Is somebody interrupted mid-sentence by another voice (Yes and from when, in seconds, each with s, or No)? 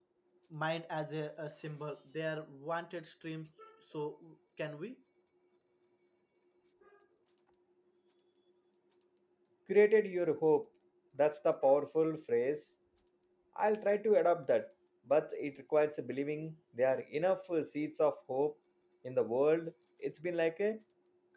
No